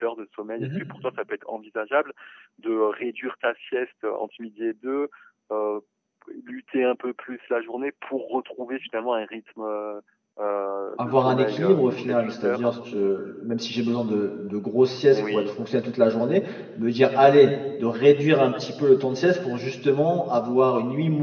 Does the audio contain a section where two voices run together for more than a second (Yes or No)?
Yes